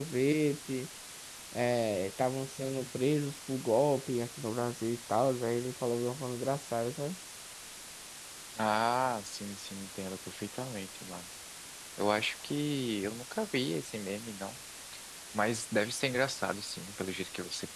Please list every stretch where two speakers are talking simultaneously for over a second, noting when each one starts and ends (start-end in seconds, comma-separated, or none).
none